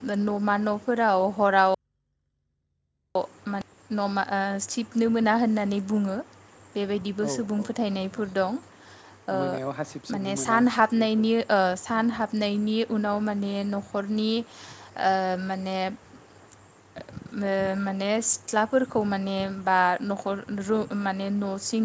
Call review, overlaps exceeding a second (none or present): none